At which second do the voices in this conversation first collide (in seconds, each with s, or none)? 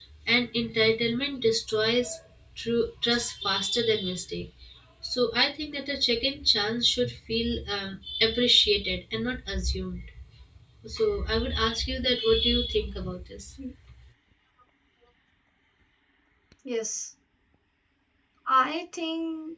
none